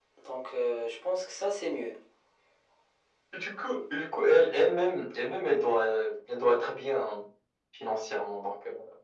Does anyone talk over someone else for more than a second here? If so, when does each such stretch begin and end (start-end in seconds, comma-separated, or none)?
none